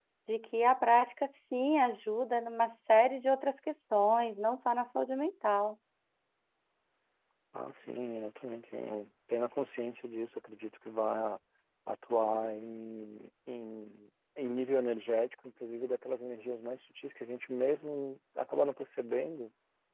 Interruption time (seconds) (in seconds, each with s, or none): none